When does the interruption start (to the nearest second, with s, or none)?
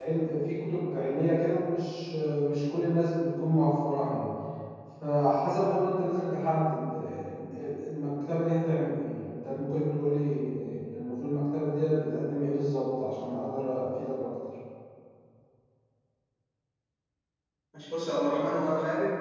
none